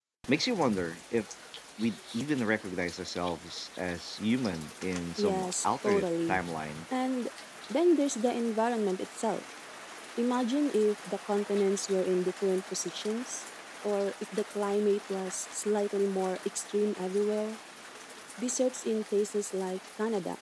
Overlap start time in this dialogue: 5.2 s

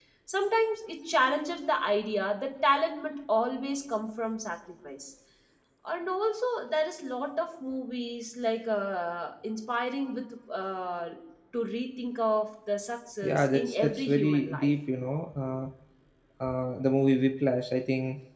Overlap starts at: 13.2 s

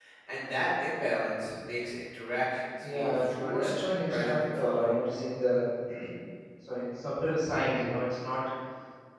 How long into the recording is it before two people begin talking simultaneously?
2.8 s

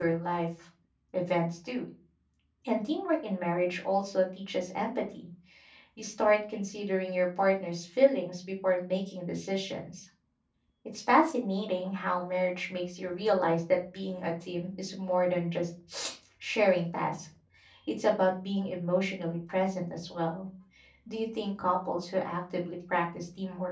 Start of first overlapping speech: none

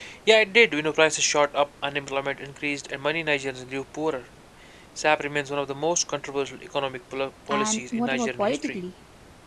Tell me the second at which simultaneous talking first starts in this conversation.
7.5 s

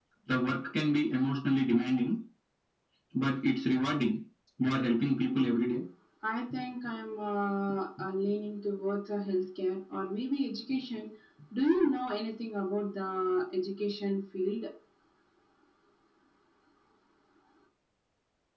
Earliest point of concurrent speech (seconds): none

